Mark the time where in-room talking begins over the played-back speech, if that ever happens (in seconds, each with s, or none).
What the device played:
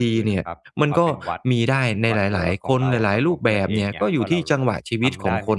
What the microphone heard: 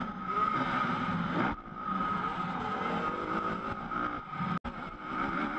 none